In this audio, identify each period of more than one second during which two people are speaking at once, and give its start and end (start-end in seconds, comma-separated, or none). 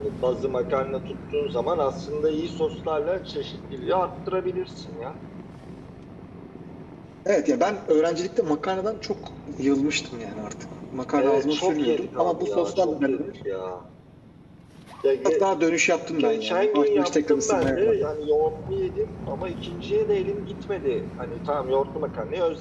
11.2-13.3, 16.1-17.9